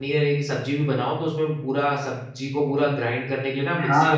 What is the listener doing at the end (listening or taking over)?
taking over